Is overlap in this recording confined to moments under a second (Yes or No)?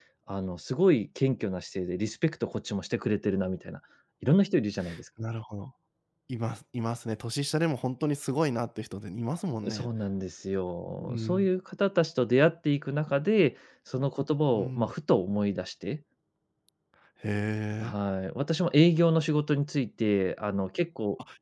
Yes